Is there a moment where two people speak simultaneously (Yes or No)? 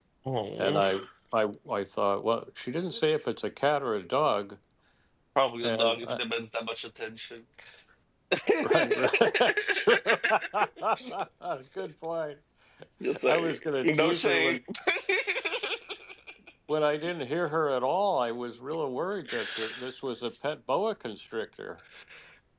Yes